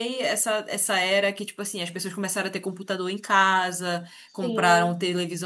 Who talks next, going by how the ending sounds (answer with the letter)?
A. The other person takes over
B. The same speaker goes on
B